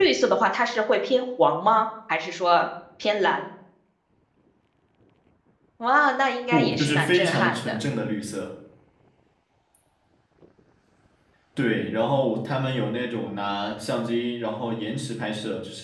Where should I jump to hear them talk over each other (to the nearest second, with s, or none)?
7 s